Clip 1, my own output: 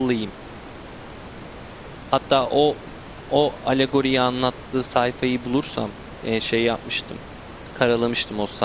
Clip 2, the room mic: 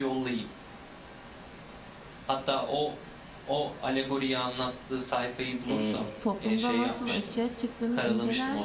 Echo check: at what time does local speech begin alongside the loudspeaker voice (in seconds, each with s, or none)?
5.7 s